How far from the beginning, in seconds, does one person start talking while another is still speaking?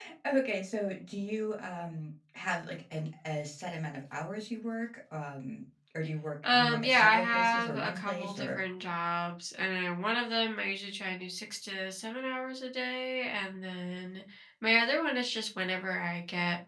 6.4 s

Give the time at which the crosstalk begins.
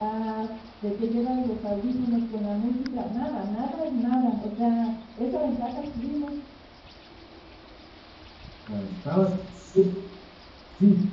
none

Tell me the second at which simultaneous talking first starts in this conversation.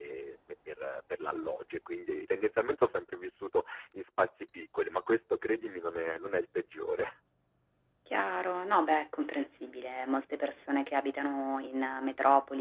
none

